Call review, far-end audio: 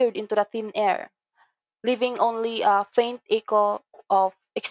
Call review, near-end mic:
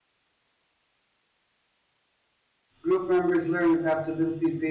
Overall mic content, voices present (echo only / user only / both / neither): user only